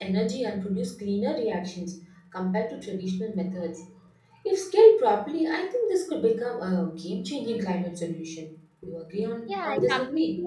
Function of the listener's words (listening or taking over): taking over